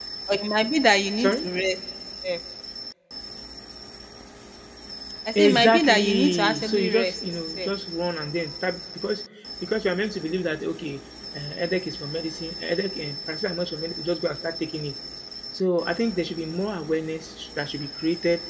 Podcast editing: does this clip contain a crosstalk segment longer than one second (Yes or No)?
Yes